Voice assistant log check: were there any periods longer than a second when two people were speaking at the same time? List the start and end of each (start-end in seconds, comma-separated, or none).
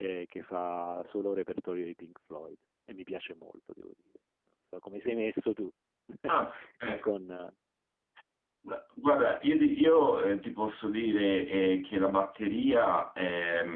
none